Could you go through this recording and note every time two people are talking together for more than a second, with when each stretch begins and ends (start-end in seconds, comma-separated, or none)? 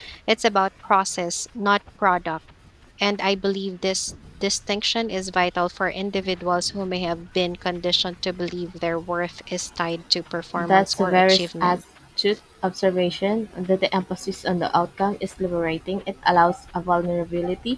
10.6-11.8